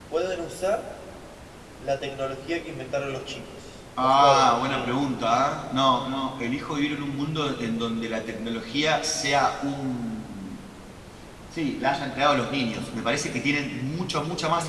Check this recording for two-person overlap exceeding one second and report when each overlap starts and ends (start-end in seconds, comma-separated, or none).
4.0-5.3